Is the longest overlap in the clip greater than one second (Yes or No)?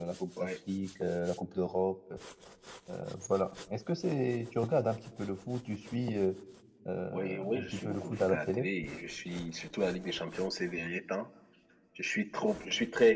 Yes